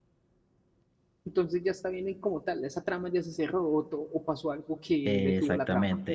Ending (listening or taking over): taking over